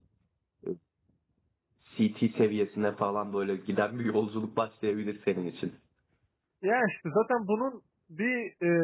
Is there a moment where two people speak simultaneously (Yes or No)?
No